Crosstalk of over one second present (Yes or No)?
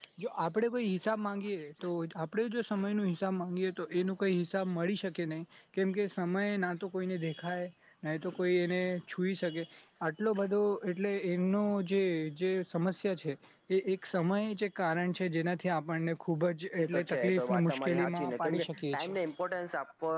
Yes